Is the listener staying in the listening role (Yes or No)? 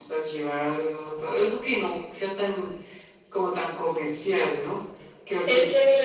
No